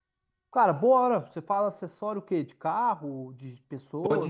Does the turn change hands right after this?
Yes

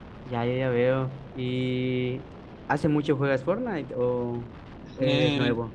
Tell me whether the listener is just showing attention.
No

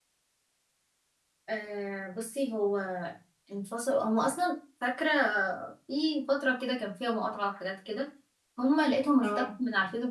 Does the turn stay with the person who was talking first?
Yes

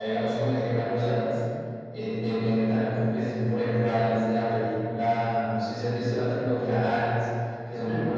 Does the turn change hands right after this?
No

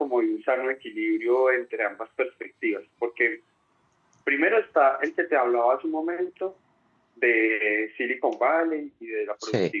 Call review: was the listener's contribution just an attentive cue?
Yes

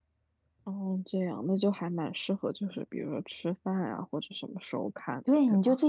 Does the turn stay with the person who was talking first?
No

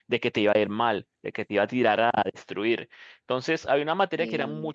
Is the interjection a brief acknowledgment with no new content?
Yes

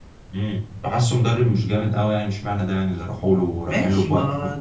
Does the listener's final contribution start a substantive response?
Yes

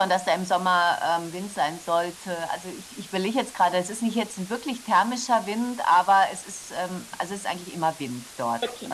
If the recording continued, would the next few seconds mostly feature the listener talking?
No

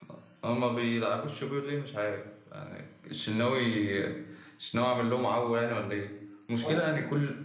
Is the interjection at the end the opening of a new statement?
No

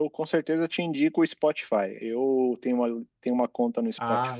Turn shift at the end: No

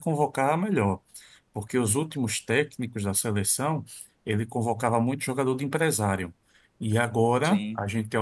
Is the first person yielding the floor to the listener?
No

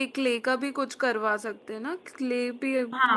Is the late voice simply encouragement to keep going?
No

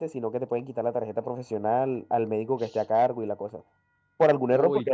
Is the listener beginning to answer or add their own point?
No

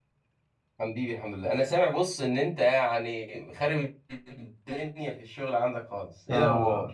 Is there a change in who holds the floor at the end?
Yes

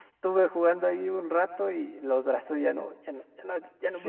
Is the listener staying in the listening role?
No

